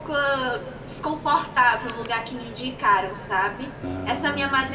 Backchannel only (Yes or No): Yes